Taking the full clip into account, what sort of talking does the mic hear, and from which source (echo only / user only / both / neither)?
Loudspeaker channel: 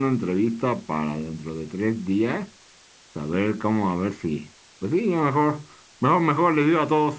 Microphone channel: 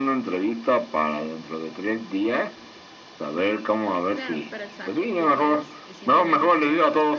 both